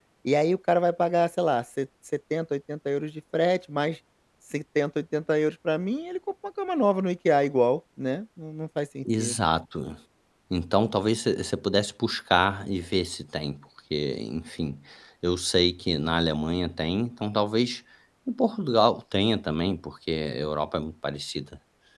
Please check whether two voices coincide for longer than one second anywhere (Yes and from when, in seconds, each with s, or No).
No